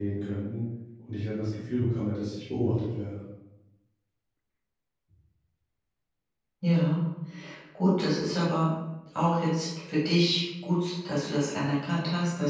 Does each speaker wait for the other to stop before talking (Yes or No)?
Yes